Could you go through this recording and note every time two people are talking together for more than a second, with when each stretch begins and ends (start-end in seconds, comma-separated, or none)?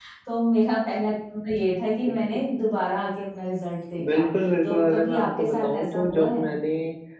4.6-6.5